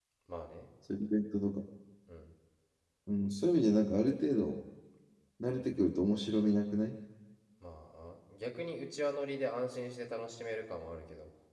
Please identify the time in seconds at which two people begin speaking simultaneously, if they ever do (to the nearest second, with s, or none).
none